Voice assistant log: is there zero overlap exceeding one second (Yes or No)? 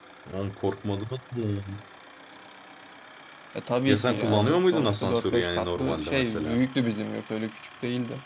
No